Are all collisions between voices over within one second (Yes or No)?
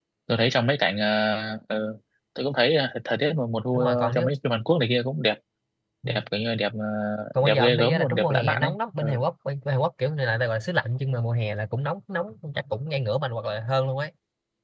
No